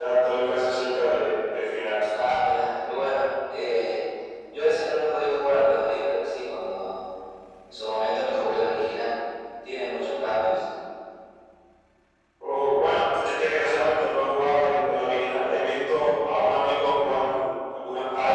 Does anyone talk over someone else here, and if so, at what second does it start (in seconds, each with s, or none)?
none